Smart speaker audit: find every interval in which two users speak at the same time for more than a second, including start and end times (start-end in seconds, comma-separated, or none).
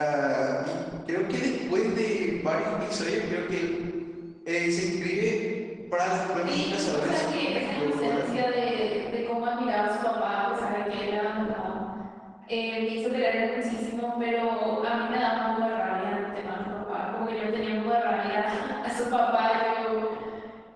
6.4-8.2